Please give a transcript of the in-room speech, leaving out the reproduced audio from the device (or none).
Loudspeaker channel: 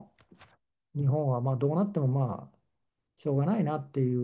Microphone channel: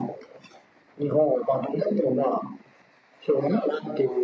none